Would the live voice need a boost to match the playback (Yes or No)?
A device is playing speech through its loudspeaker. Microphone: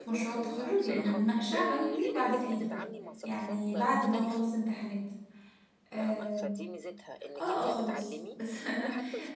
No